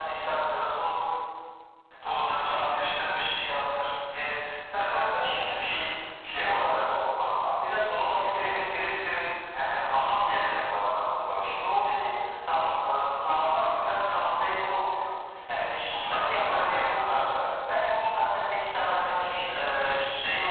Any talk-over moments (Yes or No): Yes